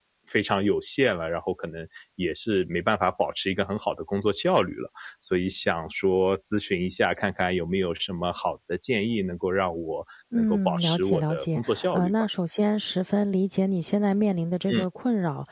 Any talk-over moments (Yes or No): Yes